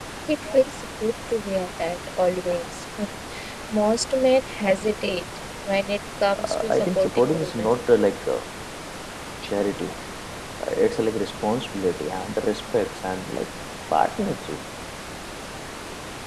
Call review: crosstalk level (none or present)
present